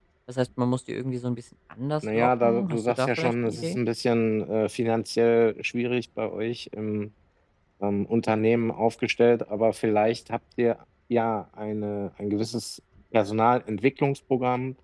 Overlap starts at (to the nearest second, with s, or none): 2 s